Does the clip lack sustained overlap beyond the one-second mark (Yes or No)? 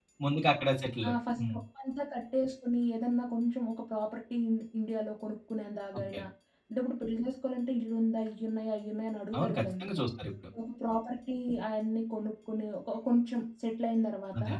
Yes